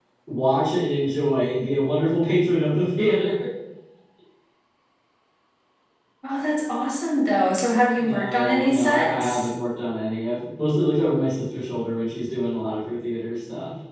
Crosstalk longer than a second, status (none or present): present